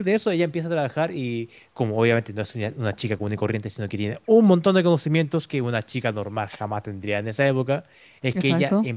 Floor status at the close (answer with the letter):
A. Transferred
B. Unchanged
B